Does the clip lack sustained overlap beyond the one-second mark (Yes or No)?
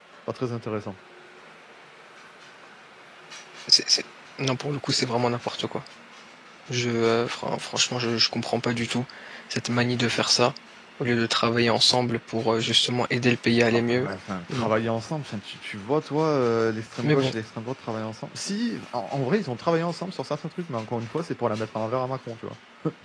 Yes